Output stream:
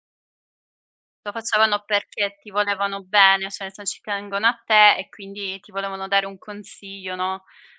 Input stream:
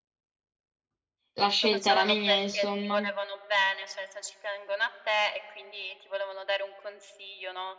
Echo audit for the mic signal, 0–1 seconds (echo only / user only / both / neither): neither